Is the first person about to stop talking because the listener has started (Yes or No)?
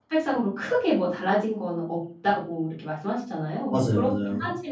No